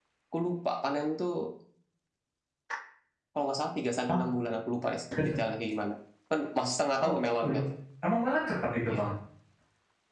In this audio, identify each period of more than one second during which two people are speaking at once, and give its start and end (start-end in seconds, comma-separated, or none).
none